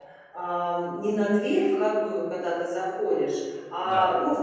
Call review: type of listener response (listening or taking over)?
listening